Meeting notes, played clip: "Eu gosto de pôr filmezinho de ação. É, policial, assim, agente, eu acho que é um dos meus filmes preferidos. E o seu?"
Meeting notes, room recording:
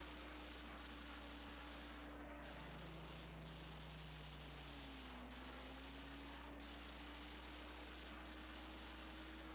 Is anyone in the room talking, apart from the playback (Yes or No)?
No